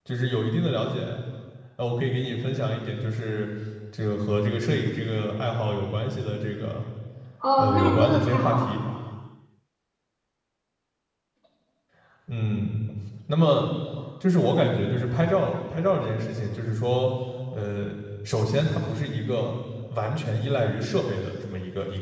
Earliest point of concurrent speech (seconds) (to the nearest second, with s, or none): 8 s